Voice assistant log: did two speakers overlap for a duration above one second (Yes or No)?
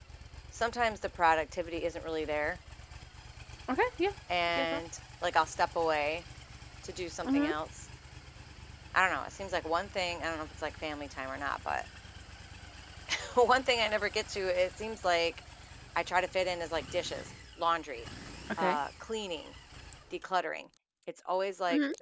No